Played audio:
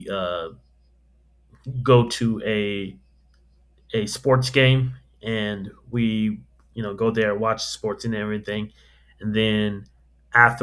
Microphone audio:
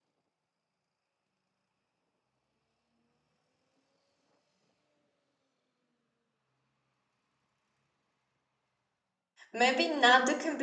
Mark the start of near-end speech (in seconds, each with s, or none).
9.5 s